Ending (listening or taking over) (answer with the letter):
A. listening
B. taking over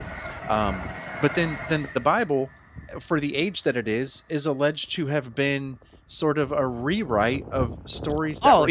B